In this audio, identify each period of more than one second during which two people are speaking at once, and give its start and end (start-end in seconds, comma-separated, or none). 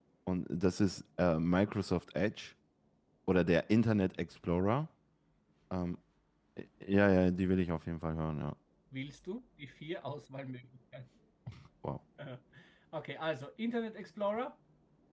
none